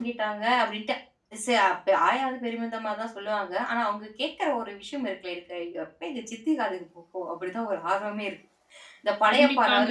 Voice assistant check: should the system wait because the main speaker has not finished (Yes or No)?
Yes